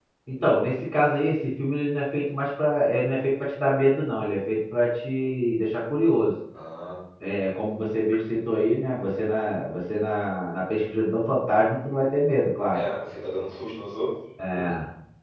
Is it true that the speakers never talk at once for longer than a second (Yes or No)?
Yes